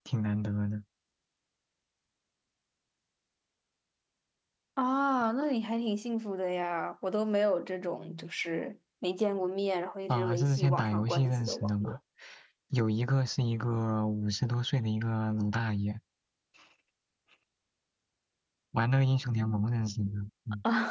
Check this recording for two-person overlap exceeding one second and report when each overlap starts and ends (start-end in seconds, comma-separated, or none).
10.1-12.0